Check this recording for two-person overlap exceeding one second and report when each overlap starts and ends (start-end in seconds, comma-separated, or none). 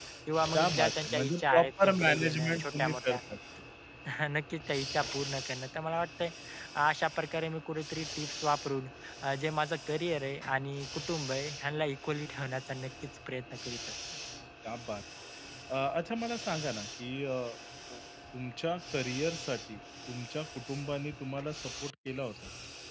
0.5-3.2